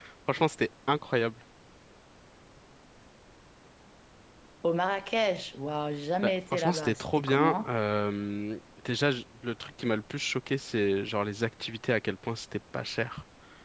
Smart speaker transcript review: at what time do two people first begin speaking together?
6.2 s

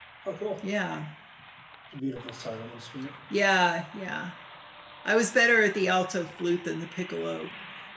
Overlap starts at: none

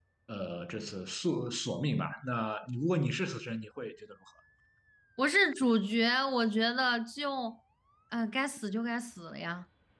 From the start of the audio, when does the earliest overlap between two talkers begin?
none

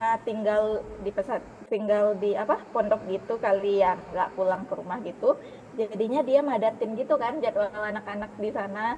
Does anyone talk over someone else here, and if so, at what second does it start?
none

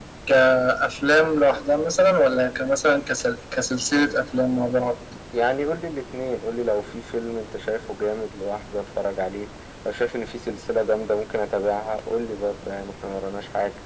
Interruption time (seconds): none

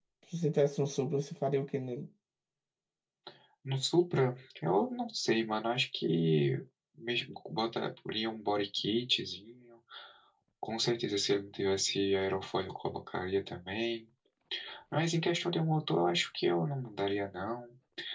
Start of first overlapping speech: none

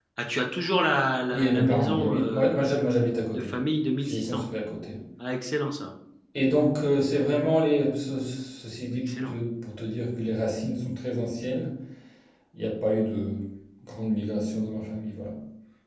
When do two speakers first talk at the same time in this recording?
1.3 s

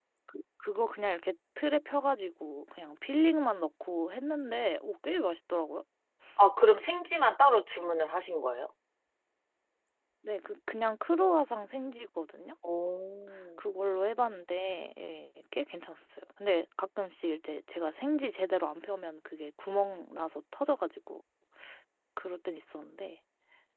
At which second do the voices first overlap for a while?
none

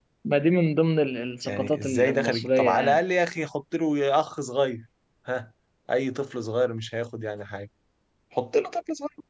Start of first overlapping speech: 1.4 s

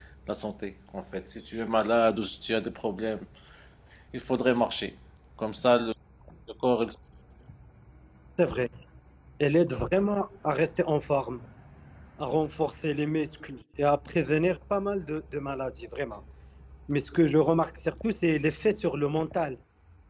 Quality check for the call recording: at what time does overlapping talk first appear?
none

